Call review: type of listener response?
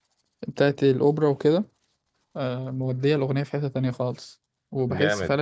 listening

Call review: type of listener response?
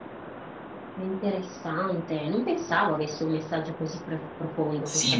taking over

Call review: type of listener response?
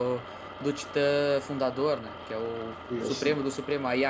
listening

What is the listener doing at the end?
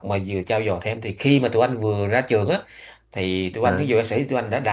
listening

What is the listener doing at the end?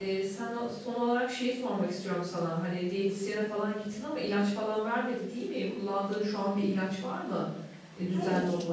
taking over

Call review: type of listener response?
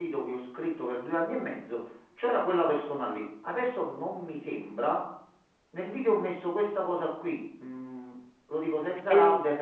listening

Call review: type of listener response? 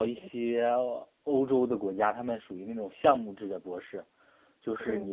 listening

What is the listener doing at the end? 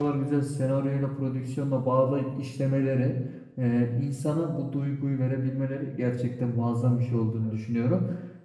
listening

